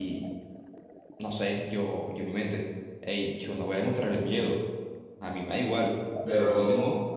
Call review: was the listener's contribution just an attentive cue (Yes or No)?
No